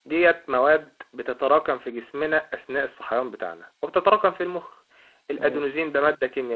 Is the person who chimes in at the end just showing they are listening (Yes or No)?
Yes